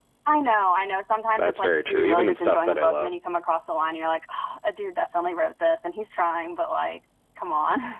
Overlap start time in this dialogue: 1.4 s

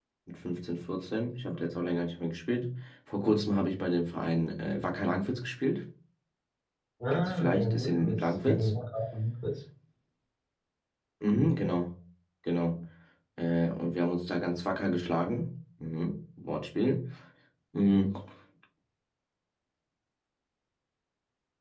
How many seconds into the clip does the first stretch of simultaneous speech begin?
7.1 s

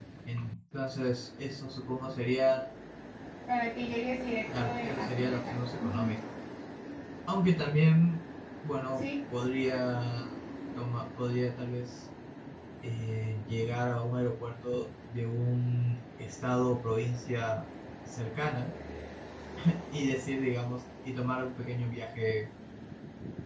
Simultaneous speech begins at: 4.6 s

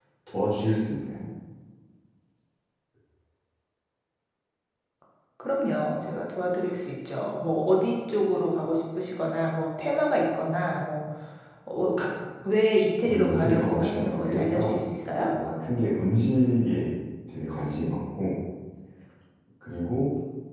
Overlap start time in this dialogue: 13.1 s

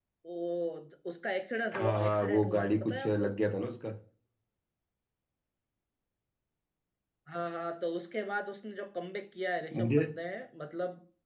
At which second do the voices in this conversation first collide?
1.7 s

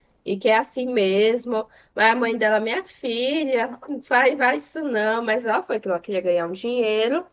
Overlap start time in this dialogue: none

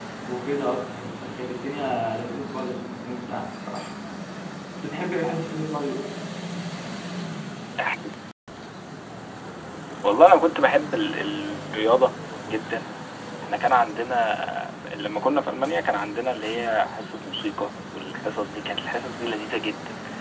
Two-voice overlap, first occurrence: none

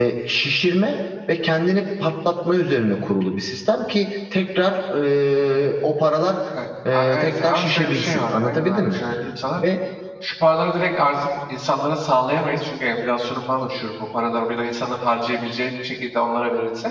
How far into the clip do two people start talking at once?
6.9 s

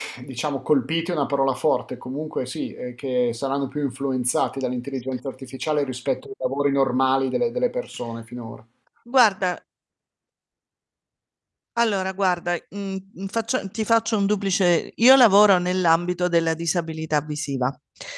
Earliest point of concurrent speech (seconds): none

